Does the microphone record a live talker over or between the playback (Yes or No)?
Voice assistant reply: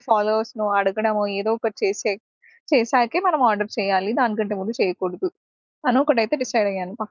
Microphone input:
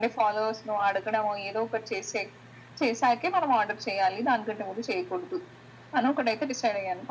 No